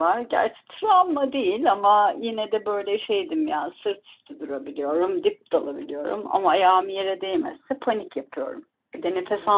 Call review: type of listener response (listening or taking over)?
taking over